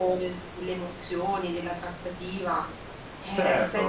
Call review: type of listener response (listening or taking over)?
taking over